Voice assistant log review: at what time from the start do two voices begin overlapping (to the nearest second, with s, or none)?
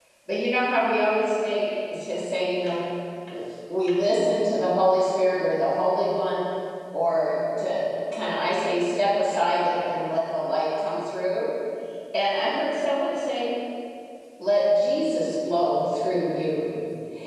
none